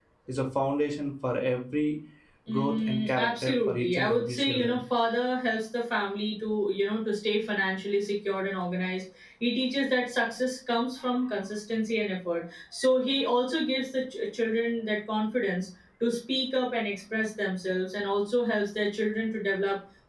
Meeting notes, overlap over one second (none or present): present